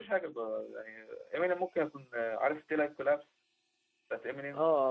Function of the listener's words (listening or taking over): taking over